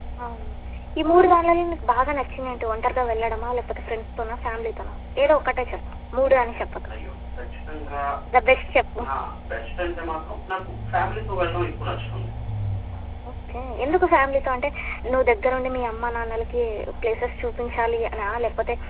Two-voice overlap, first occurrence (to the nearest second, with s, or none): none